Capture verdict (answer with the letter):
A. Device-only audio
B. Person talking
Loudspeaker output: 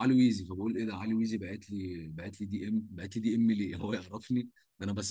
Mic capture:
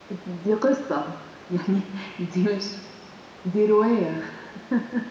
B